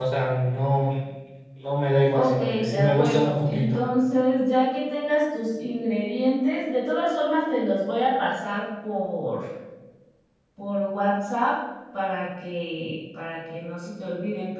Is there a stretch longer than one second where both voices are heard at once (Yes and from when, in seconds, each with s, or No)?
Yes, from 2.1 s